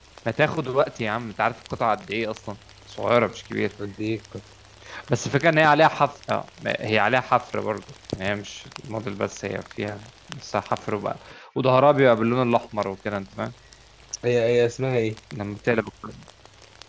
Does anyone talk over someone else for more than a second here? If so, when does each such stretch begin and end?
none

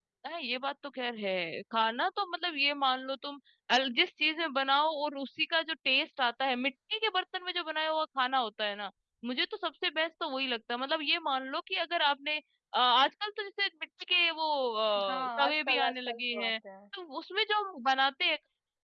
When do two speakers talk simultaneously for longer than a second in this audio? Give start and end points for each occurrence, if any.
15.1-16.5

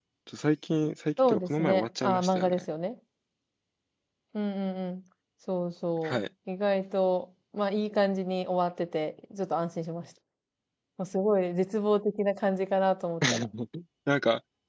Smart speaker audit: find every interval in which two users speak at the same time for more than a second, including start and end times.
1.2-2.6

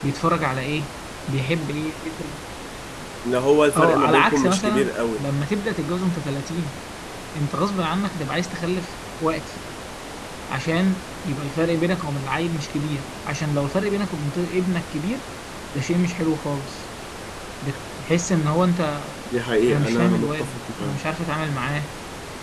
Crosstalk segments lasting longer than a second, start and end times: 3.8-5.2, 19.7-21.0

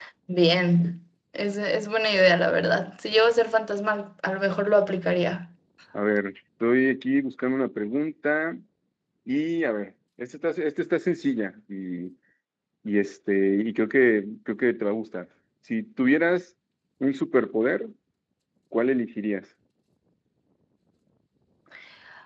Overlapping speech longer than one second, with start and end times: none

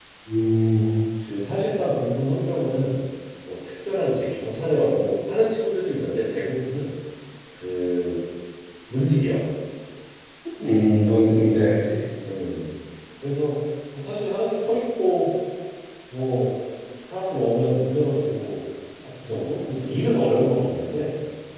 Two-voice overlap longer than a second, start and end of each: none

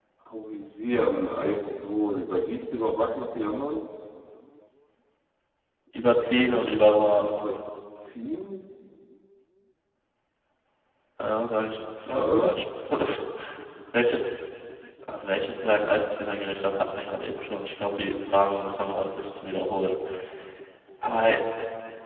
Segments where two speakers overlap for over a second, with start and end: none

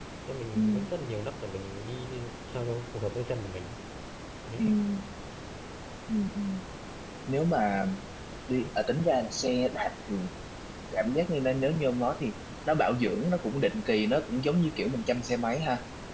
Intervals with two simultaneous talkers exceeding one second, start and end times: none

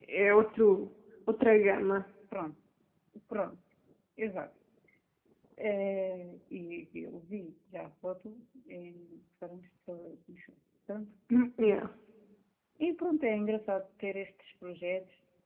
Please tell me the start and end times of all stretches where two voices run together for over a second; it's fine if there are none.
none

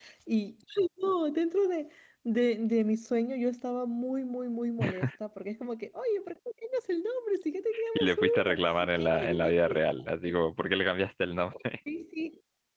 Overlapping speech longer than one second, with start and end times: 8.0-9.5

